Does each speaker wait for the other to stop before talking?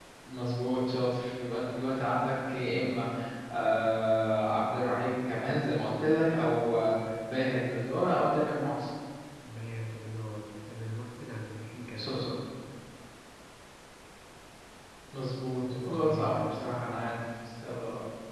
No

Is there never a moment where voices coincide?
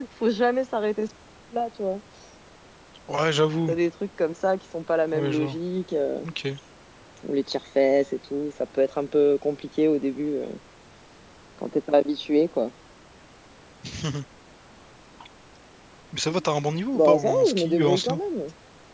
No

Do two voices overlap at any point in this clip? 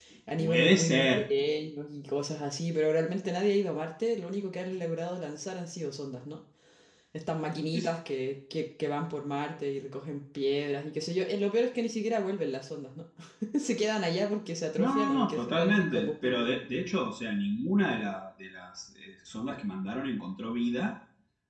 Yes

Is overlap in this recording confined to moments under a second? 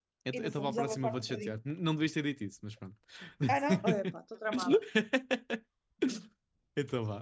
No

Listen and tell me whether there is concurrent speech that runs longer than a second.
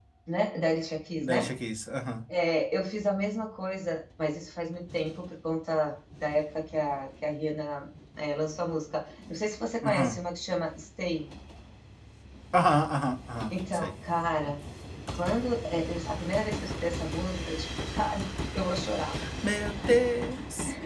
No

